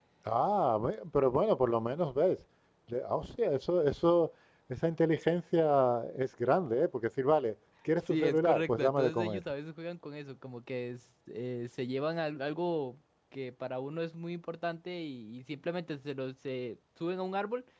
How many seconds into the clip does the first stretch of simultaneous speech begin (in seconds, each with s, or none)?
8.1 s